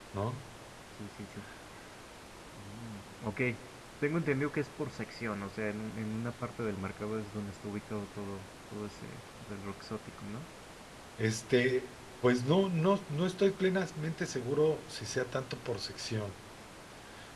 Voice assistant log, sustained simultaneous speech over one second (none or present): none